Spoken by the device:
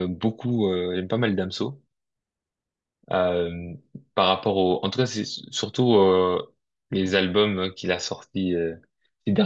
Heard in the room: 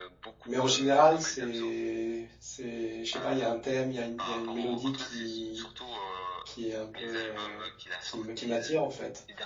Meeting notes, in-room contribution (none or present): present